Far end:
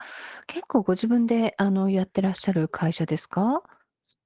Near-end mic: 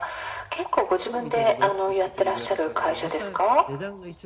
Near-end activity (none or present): present